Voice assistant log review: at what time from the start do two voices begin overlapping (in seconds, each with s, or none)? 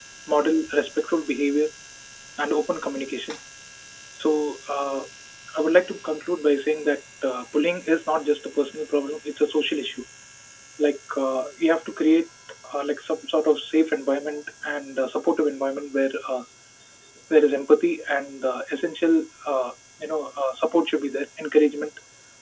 none